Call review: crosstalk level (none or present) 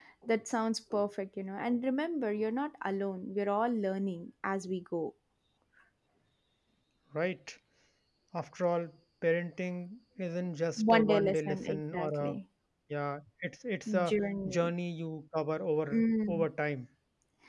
present